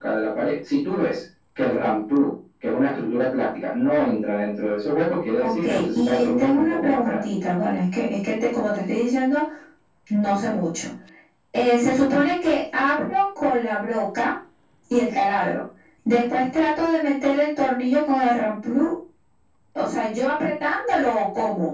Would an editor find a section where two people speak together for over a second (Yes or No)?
Yes